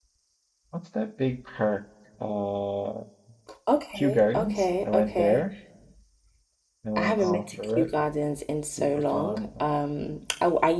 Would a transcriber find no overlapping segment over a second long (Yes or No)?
No